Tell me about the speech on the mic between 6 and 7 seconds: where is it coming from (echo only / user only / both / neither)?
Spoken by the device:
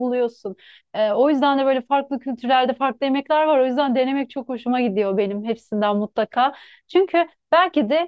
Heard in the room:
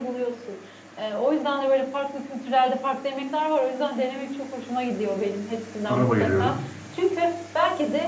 both